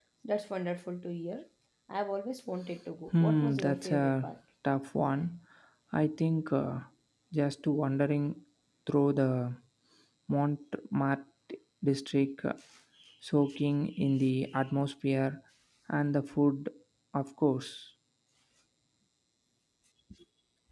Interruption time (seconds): 3 s

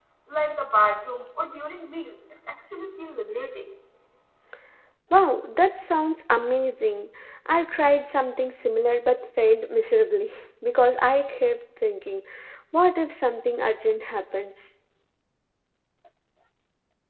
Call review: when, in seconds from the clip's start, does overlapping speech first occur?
none

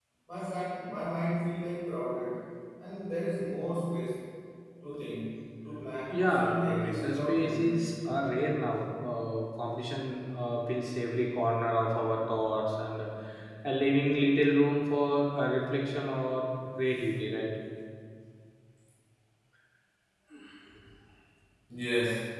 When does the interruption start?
6 s

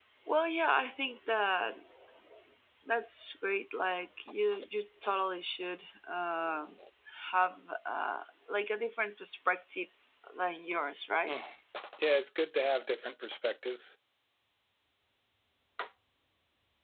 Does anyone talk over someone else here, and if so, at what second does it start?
none

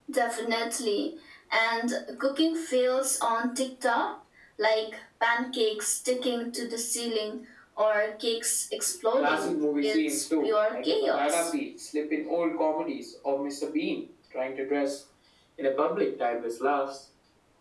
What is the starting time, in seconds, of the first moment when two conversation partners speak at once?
9 s

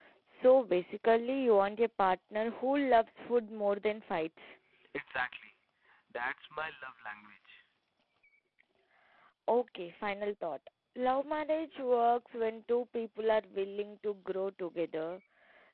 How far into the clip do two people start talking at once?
none

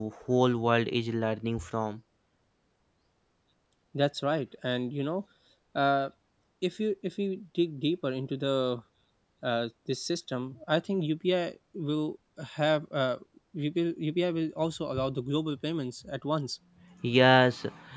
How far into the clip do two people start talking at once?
none

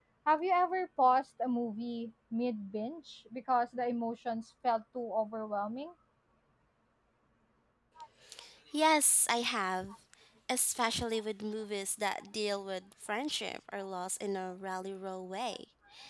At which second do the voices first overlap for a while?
none

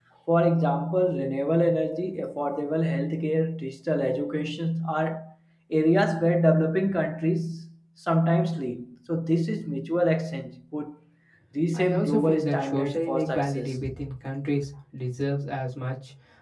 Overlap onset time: 12 s

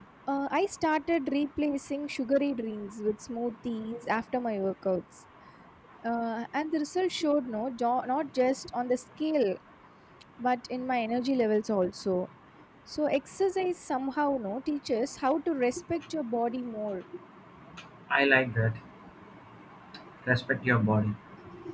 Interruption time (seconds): none

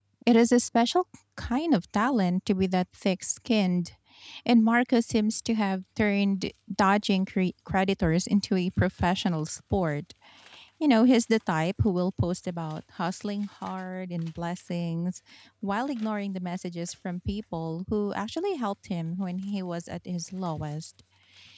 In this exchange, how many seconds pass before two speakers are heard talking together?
none

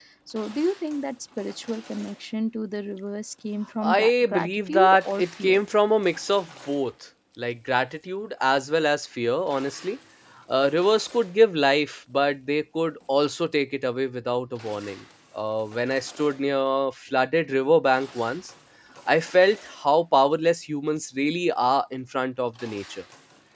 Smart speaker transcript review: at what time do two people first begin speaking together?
4 s

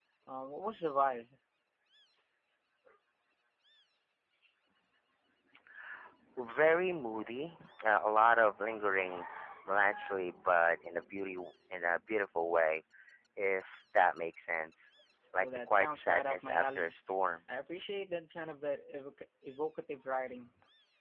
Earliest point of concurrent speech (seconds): 15 s

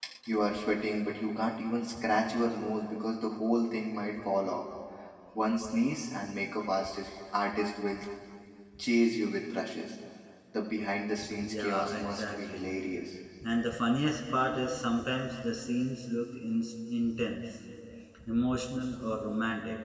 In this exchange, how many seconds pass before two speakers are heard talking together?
11 s

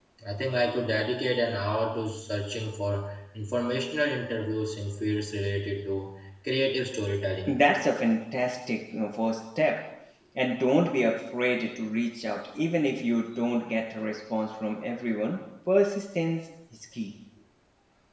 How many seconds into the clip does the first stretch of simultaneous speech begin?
none

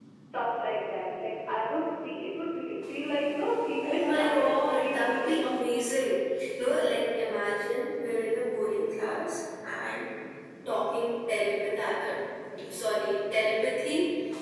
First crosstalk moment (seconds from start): 4 s

